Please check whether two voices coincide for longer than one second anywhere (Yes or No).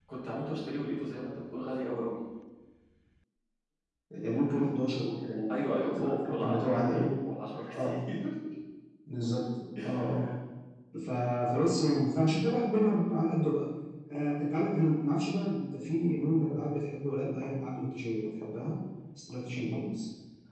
Yes